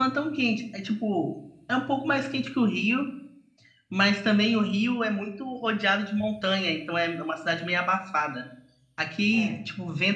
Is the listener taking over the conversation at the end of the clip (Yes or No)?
No